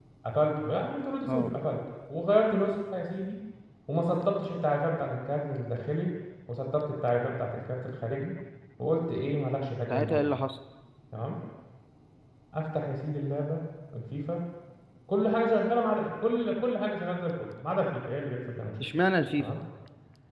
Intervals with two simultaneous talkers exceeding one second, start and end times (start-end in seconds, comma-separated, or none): none